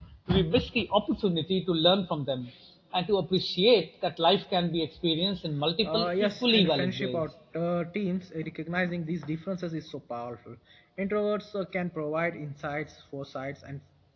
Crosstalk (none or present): present